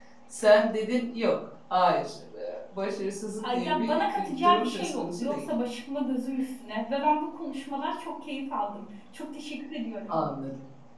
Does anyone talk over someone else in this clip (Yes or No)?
Yes